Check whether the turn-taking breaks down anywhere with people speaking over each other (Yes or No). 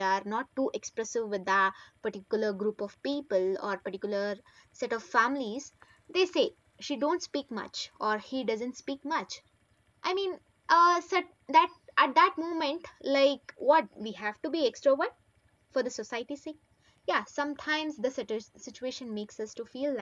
No